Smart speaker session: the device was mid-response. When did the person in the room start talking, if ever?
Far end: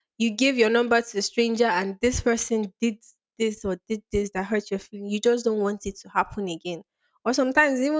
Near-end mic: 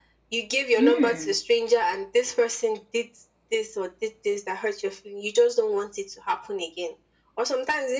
0.7 s

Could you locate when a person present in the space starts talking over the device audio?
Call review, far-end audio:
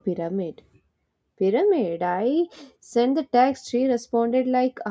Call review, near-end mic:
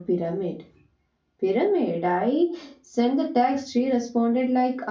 none

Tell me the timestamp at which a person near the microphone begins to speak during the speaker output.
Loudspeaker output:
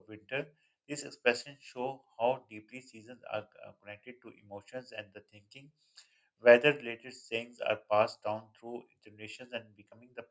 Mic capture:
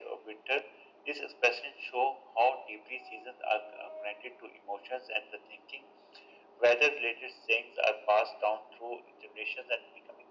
none

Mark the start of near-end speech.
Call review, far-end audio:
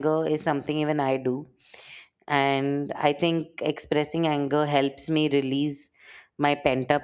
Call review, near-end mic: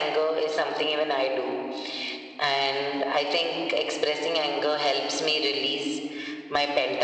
none

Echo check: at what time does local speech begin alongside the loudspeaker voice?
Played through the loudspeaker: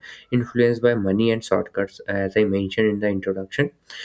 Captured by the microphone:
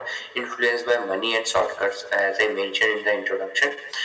none

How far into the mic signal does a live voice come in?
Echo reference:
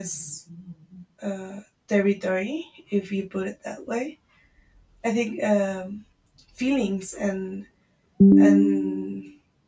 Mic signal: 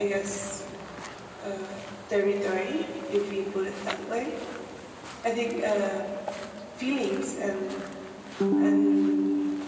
none

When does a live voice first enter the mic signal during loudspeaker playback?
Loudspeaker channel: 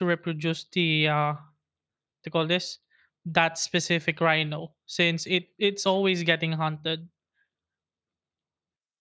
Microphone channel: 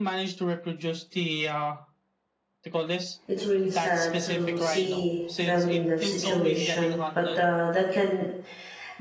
3.3 s

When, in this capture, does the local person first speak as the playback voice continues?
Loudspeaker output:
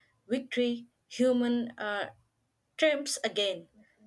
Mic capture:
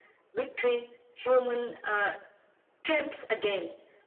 none

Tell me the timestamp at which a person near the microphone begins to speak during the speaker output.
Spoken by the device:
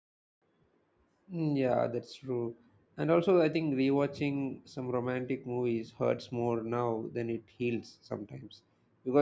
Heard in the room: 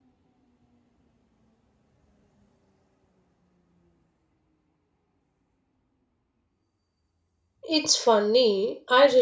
7.7 s

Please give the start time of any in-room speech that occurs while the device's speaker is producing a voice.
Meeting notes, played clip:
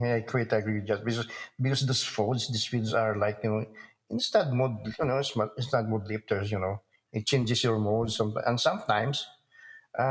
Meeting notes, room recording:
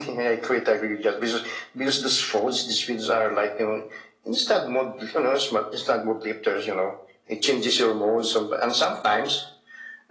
none

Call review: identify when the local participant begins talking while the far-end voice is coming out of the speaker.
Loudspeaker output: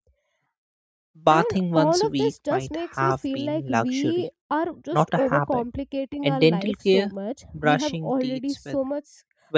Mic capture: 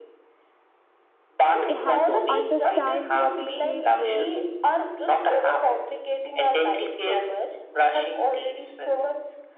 1.7 s

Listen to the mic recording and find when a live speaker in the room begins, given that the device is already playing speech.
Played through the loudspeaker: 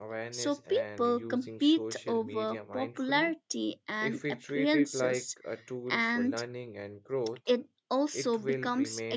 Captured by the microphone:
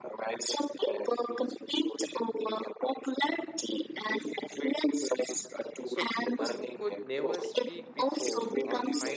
5.8 s

